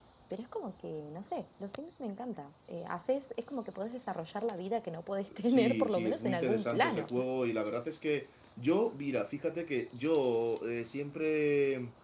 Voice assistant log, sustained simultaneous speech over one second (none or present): present